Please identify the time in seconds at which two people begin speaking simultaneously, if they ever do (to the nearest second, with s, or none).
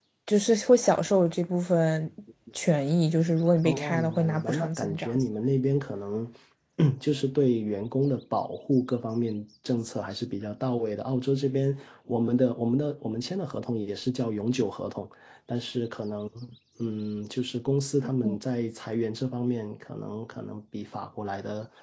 4 s